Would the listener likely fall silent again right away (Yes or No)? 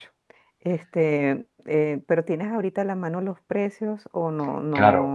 No